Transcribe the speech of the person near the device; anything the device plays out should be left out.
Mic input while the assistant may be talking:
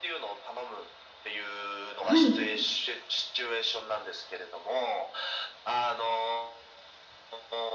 はい。

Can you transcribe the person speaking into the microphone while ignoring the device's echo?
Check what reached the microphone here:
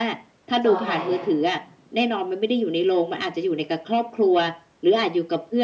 จอใหญ่อะ

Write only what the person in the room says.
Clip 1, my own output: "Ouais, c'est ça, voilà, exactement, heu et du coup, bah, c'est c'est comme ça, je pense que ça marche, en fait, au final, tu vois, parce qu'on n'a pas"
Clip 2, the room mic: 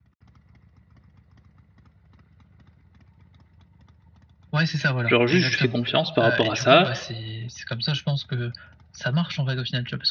Genre, juste je lui fais confiance par rapport à ça,

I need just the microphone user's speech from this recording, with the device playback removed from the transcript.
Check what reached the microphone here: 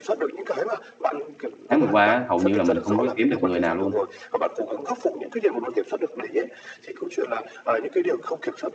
tháng vừa qua á, hầu như là mình không có kiếm được người nào luôn,

